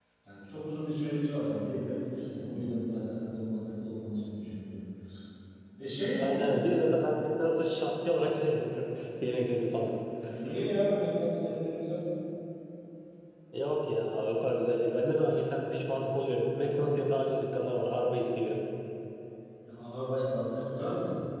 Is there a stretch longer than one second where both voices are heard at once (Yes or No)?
No